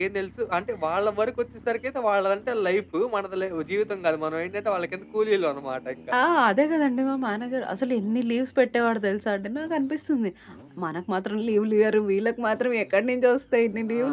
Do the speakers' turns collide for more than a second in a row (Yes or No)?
No